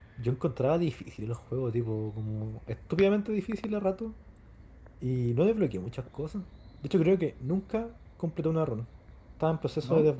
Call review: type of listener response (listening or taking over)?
listening